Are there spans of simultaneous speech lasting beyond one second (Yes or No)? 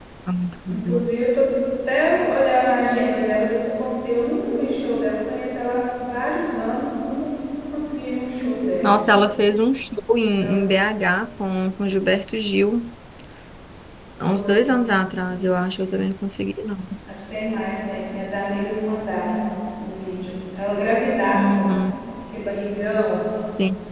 No